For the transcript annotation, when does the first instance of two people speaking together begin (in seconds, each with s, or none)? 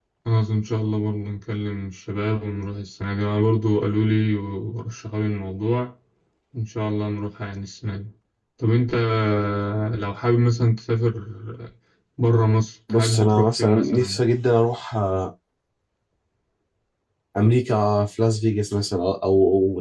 12.9 s